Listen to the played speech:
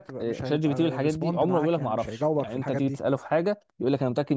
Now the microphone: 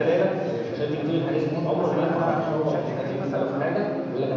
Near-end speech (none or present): present